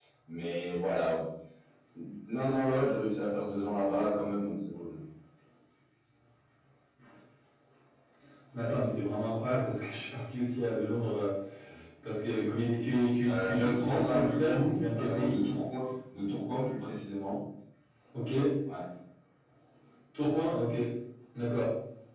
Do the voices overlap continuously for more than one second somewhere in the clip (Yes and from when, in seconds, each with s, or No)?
Yes, from 13.2 s